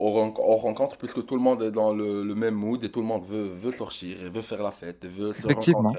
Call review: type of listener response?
listening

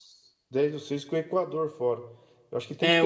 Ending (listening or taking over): taking over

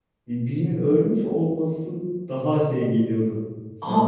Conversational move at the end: taking over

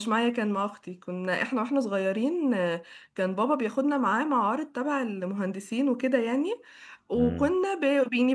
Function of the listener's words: listening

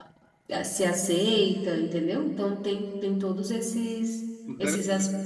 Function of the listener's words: taking over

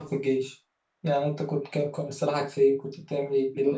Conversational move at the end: taking over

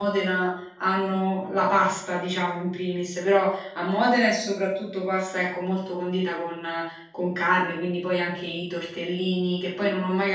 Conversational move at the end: listening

